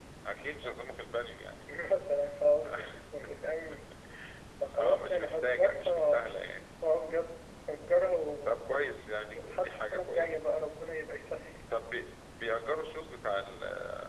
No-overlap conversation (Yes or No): No